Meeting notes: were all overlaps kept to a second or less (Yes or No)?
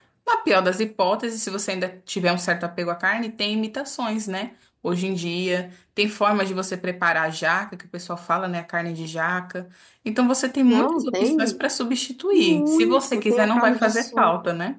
No